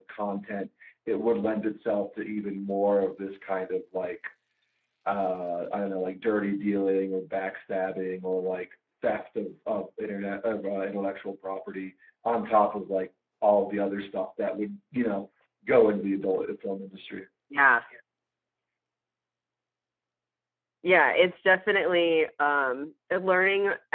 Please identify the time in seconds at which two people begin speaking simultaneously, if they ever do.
none

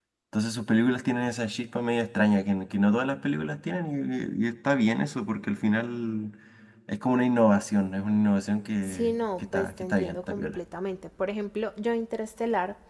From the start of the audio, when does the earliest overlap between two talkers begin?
8.8 s

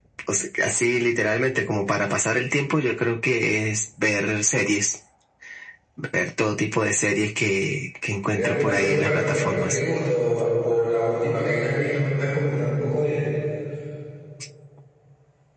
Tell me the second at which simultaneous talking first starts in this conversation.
8.3 s

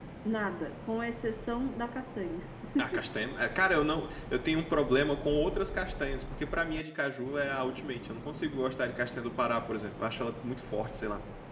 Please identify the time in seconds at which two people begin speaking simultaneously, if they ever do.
none

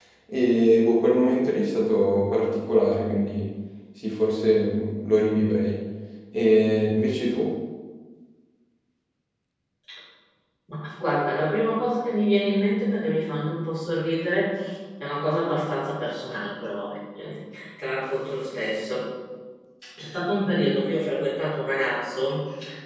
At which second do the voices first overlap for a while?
none

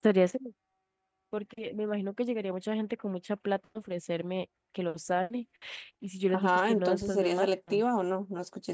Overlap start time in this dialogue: 6.3 s

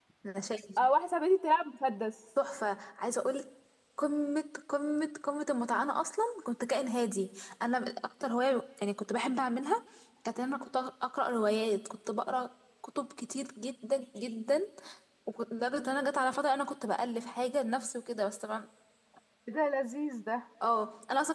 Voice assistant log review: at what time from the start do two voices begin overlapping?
none

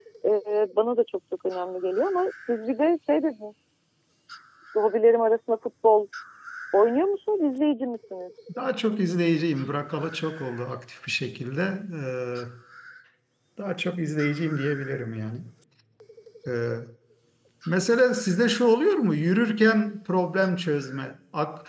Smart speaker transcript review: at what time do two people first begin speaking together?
none

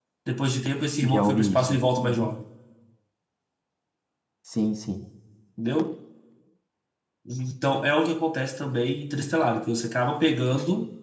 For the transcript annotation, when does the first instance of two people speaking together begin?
1.0 s

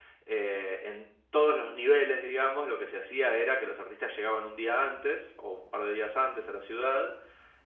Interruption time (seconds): none

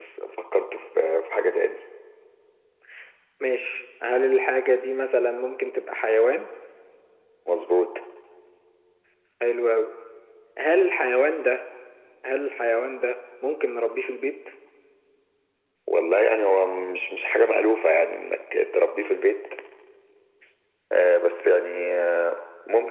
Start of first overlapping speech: none

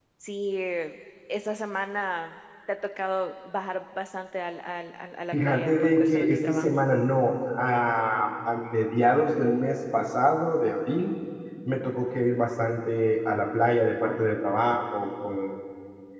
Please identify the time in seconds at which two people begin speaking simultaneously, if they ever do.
5.3 s

